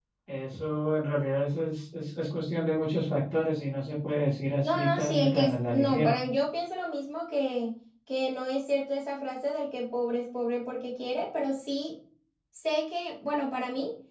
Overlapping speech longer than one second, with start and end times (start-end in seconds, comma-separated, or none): 4.6-6.2